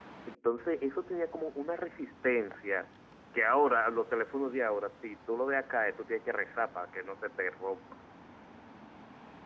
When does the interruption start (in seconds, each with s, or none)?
none